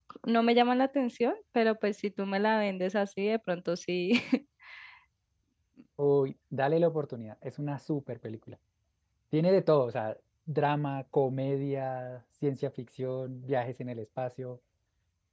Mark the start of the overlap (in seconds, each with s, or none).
none